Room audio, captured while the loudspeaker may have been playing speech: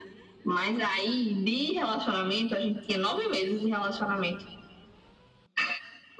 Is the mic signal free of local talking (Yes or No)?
Yes